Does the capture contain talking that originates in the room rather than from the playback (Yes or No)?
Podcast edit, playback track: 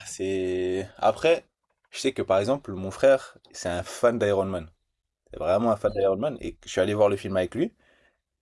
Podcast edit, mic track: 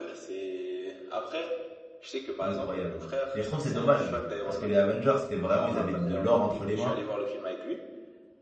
Yes